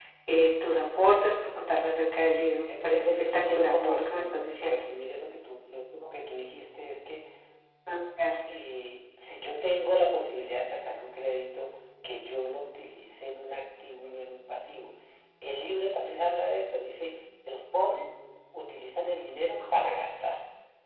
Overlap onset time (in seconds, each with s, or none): 2.7 s